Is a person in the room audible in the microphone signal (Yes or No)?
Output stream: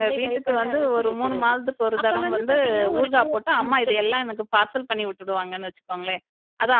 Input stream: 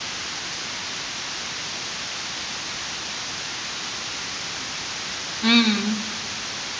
Yes